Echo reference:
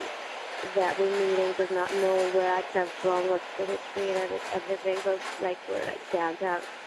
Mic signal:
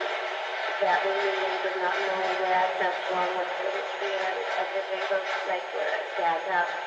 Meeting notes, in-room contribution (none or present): none